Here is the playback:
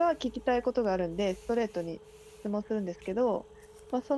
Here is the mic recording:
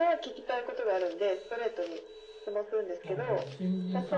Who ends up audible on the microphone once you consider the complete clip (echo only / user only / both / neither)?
both